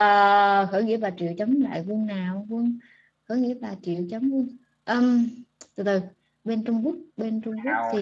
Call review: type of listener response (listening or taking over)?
taking over